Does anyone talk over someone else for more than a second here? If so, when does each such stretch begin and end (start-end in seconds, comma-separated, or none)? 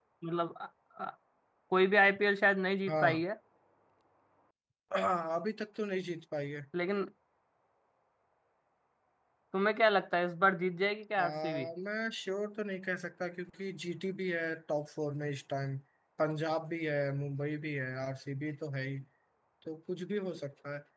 none